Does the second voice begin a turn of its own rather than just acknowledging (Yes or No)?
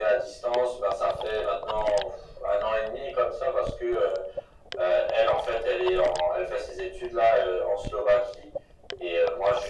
No